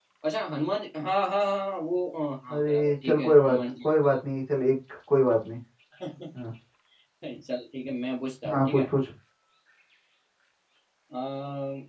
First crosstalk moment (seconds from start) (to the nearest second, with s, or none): 3 s